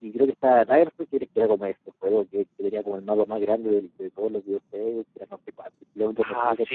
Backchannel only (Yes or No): No